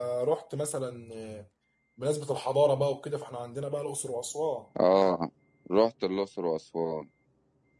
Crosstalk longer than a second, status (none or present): none